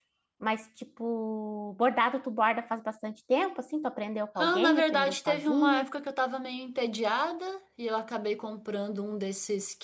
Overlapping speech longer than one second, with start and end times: 4.4-5.9

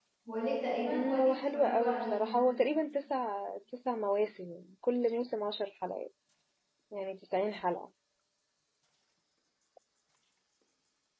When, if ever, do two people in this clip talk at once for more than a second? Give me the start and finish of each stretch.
0.9-2.2

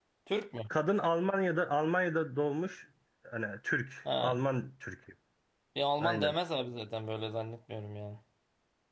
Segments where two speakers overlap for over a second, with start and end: none

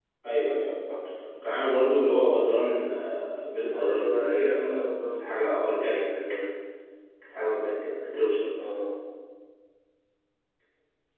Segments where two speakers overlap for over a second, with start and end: 3.7-5.4

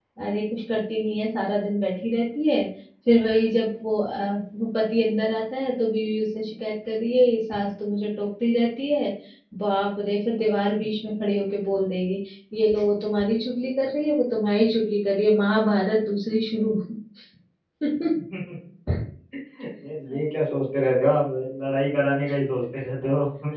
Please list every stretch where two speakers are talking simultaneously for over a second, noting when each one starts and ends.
none

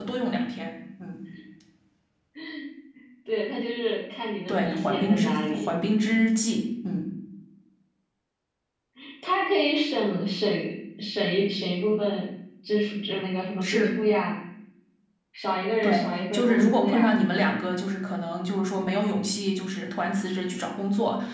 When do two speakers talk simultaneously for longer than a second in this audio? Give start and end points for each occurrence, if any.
4.5-5.8, 15.8-17.3

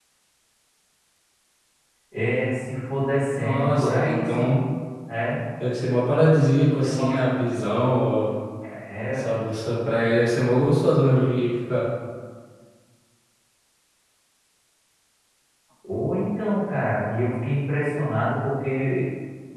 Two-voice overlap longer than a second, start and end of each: 3.4-4.6

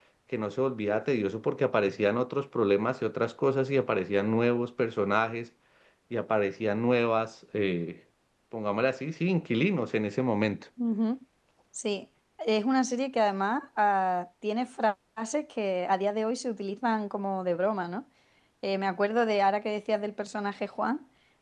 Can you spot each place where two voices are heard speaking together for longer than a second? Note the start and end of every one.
none

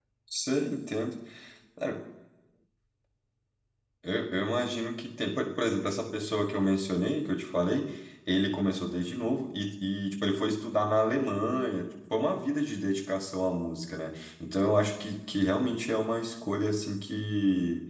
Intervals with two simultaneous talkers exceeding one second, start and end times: none

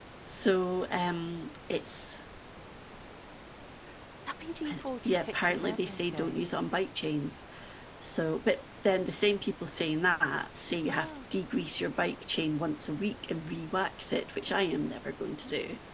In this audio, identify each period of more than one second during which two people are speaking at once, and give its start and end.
5.0-6.5

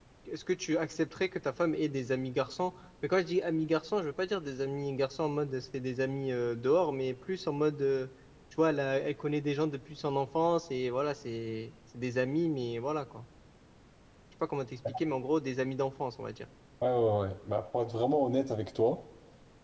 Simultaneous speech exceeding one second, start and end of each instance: none

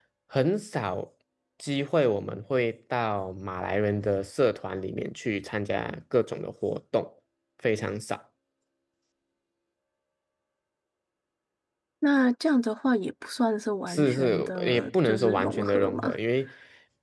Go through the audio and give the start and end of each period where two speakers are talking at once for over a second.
13.9-16.2

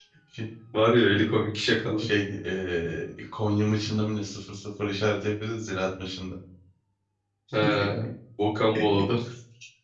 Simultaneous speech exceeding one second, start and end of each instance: none

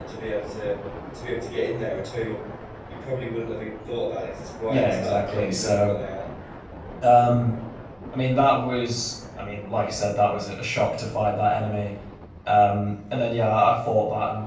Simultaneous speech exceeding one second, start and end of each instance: 4.7-5.9

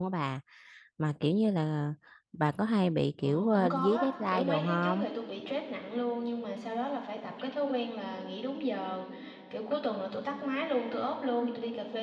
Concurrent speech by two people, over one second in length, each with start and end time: 3.2-5.0

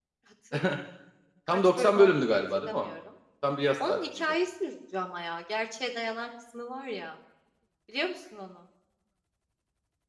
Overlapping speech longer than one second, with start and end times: 1.5-2.9

